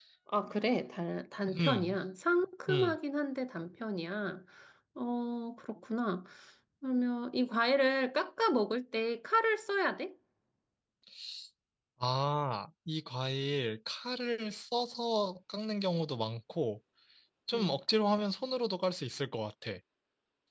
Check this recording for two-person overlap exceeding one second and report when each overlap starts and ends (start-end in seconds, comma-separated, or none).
none